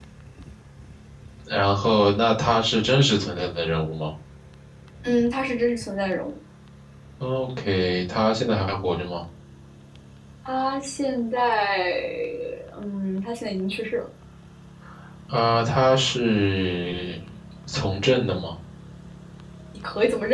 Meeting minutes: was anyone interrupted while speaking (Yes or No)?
No